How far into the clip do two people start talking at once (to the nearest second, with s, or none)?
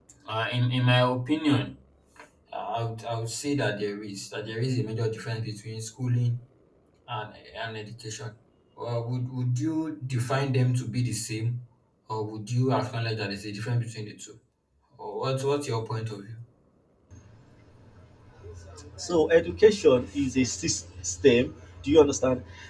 none